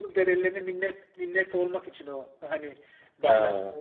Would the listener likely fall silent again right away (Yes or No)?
Yes